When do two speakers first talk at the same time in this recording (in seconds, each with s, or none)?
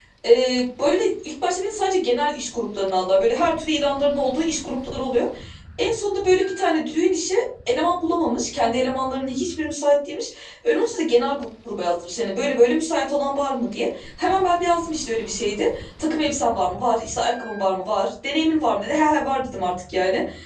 none